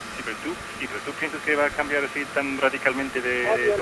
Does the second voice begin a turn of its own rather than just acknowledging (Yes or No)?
Yes